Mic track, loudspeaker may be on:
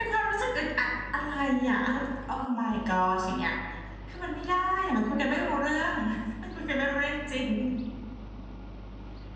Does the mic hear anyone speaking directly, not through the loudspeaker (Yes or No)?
Yes